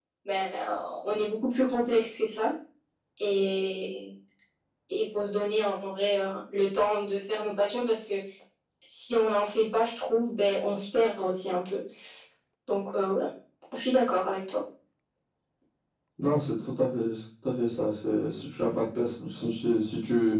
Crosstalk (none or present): none